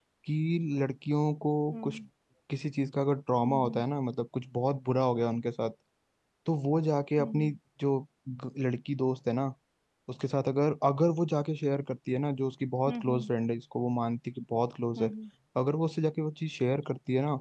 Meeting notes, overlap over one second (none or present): none